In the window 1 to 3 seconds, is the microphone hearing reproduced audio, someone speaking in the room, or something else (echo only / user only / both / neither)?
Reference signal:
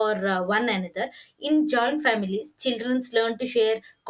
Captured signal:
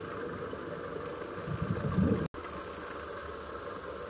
neither